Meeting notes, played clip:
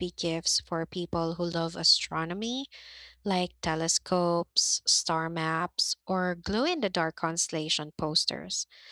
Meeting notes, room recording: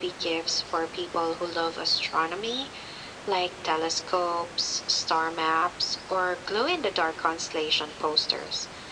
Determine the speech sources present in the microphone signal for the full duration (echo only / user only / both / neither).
echo only